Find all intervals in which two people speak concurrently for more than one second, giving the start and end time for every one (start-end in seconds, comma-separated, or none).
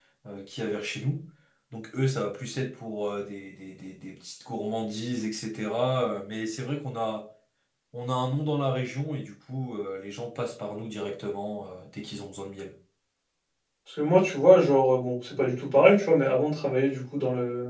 none